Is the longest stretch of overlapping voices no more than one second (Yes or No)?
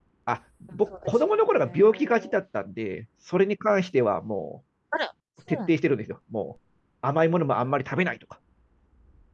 No